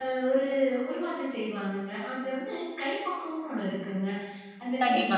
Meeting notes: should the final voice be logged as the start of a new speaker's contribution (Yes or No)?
No